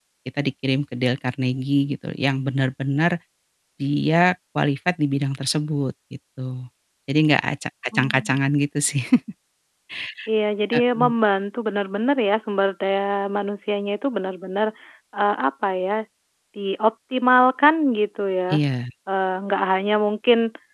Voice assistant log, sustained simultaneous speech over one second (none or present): none